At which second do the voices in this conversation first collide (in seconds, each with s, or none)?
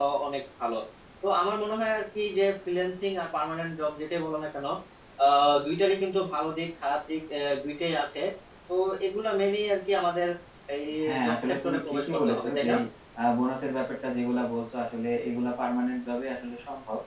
11.2 s